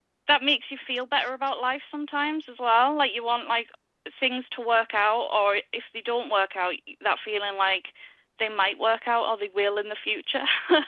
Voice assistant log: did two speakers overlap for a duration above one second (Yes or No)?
No